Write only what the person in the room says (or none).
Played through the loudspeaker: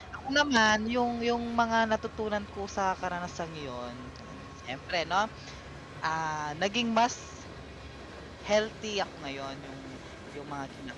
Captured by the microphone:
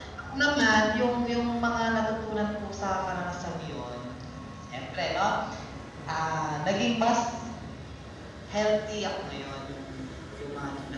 none